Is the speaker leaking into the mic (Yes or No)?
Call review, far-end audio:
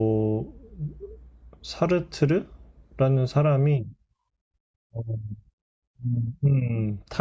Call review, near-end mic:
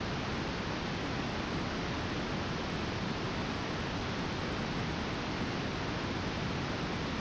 No